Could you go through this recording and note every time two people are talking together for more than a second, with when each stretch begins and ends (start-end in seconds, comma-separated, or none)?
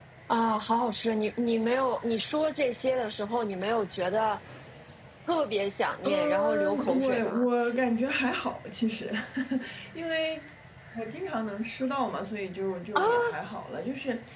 6.0-7.5